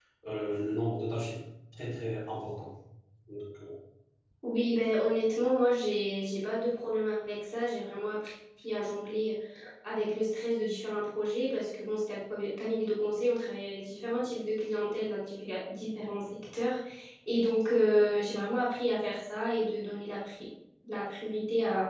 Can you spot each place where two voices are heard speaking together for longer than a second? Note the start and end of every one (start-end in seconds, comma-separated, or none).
none